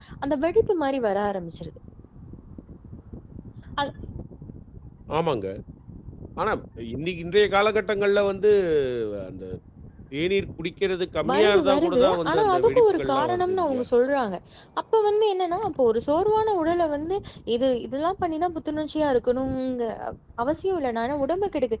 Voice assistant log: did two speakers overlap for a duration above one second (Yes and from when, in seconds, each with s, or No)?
Yes, from 11.2 s